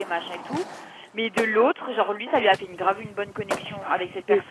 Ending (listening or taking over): listening